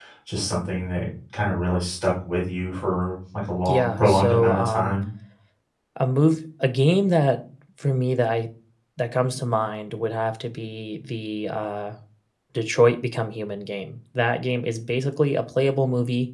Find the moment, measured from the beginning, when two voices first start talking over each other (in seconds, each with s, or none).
3.6 s